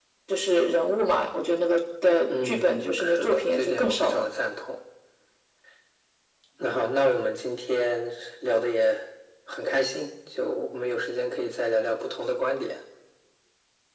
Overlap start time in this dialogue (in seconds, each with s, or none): 2.3 s